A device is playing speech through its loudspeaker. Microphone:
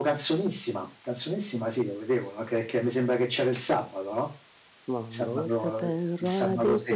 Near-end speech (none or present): present